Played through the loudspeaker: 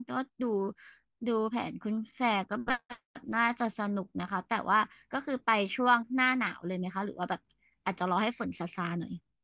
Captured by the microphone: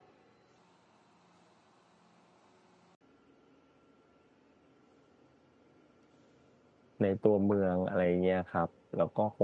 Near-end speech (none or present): present